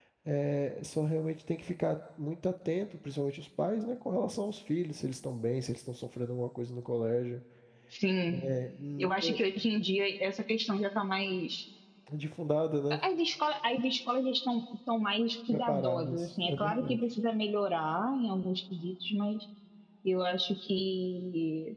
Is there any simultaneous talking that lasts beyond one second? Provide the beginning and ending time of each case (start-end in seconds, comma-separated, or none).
15.5-17.0